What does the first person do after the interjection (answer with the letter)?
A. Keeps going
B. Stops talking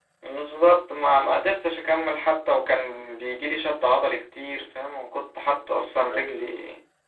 A